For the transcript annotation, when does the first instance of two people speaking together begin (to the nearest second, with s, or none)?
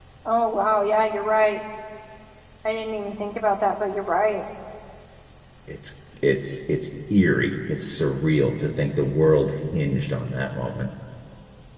none